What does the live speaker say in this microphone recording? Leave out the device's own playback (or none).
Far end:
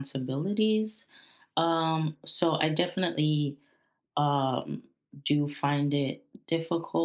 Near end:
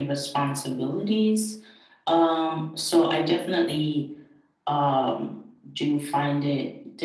none